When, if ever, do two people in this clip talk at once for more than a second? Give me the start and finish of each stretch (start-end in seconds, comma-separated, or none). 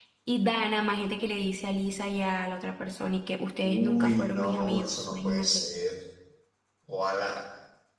3.6-5.7